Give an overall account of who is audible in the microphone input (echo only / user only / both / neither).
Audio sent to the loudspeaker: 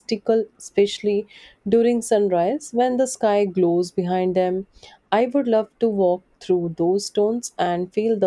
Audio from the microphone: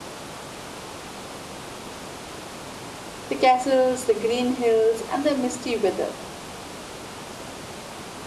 user only